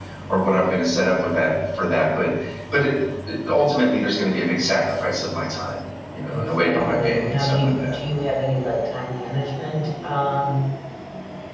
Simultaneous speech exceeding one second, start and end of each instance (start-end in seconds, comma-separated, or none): 6.3-7.9